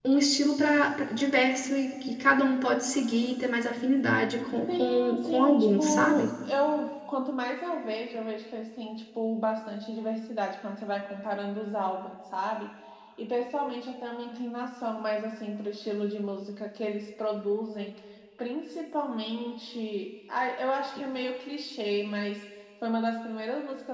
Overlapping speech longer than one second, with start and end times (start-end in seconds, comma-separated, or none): 4.7-6.3